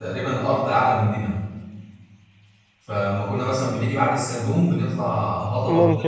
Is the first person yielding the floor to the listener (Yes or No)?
No